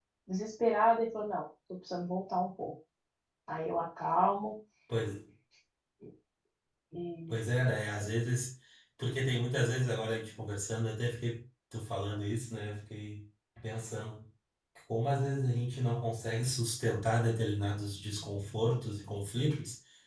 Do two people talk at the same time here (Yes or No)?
No